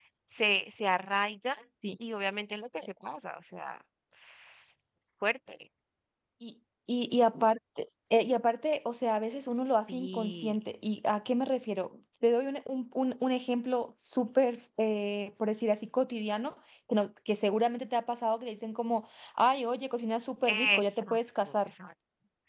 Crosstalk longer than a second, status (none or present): present